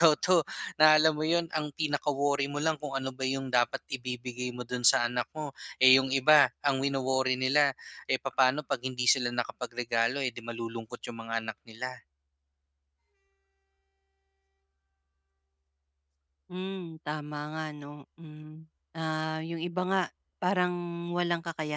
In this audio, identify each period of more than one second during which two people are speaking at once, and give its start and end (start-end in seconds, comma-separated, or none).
none